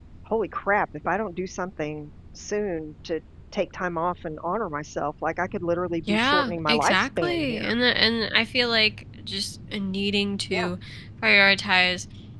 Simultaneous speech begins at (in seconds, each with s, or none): 6.1 s